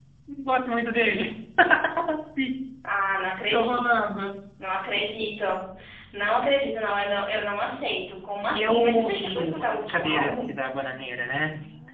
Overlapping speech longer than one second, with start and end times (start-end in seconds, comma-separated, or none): 8.5-10.5